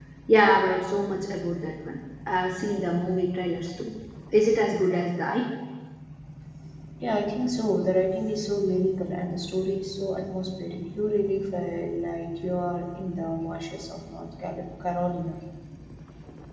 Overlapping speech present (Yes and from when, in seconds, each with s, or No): No